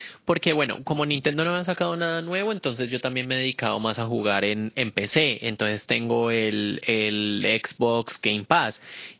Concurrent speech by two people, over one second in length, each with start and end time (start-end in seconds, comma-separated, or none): none